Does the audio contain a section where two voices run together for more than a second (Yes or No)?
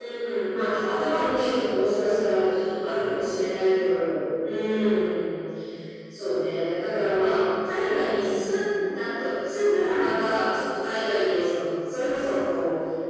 Yes